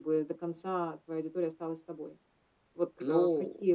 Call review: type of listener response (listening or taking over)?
listening